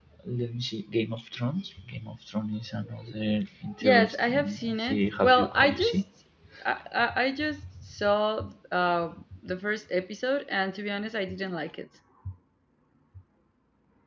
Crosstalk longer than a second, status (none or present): present